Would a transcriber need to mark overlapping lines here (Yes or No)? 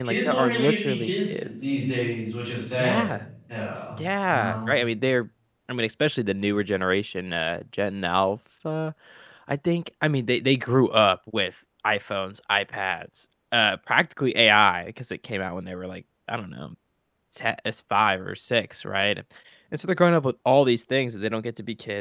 Yes